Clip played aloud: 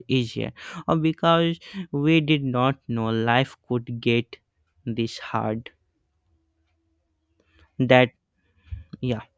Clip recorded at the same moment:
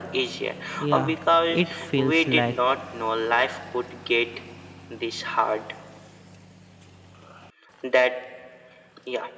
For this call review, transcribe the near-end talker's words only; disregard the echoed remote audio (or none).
yeah, it feels like